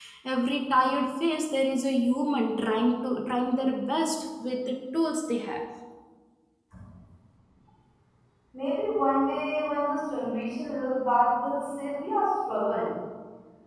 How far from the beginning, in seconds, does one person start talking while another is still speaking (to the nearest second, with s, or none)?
none